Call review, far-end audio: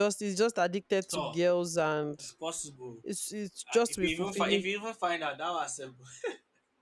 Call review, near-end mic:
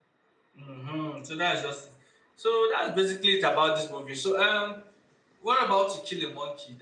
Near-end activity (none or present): present